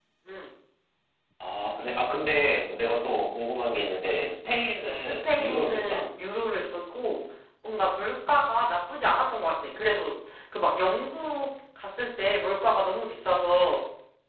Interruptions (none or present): present